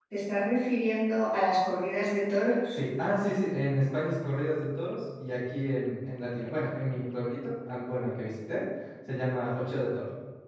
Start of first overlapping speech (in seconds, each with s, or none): none